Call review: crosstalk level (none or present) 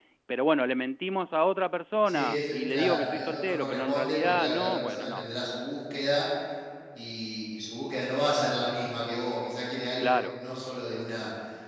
present